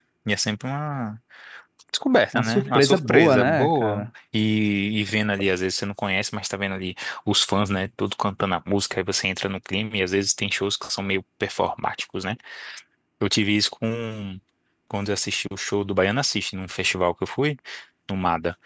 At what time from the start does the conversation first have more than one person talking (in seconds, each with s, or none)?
2.3 s